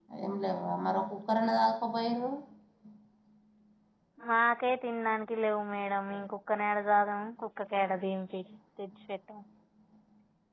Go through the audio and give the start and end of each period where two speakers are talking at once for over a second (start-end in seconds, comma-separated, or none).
none